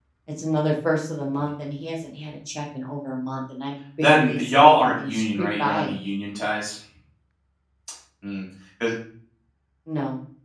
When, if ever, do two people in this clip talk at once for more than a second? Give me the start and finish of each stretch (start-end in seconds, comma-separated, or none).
4.0-5.9